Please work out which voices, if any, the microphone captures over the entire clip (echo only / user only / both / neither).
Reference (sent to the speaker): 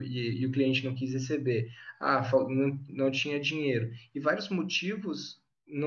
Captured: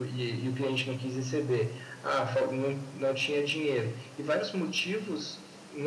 echo only